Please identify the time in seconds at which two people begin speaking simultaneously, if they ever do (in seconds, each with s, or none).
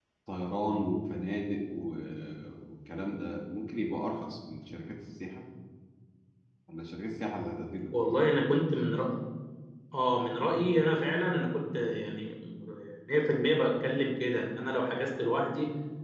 none